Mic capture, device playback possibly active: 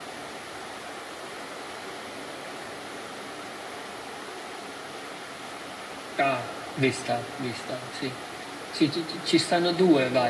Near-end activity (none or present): present